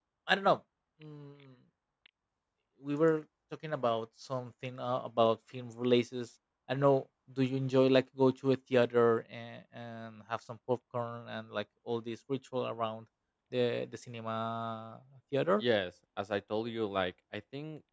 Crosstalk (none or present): none